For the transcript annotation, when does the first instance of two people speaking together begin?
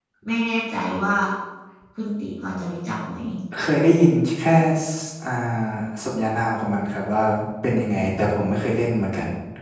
none

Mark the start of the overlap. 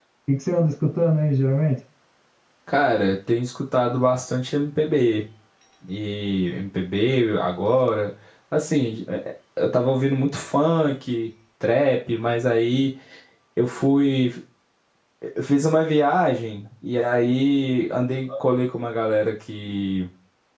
none

